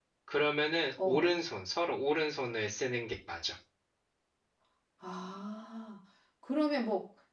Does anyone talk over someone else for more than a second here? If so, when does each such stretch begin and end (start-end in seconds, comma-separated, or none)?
none